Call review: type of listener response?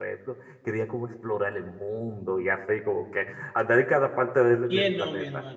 taking over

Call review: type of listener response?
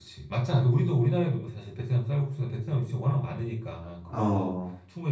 listening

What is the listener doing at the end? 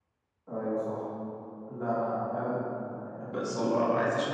taking over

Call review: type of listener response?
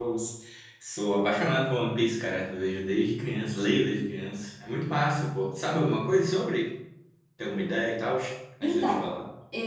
taking over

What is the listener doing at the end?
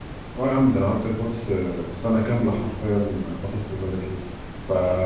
listening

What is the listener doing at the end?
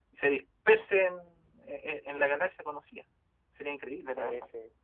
taking over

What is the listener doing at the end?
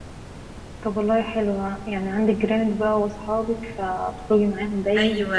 taking over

